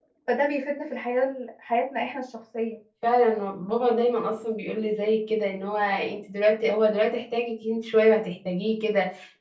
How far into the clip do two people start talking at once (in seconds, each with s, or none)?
none